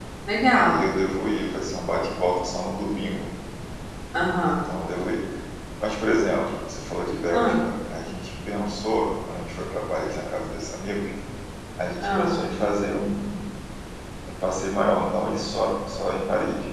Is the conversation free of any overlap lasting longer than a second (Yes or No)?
Yes